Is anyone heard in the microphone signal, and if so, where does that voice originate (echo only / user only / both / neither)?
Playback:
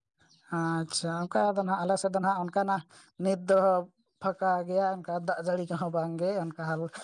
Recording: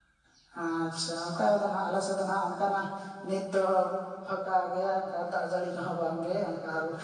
echo only